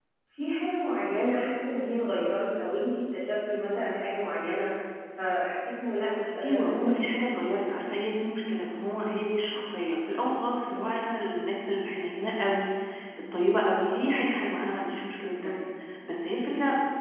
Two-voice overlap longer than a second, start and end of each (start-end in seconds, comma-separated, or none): none